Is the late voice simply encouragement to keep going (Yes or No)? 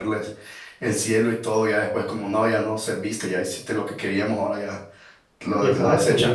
No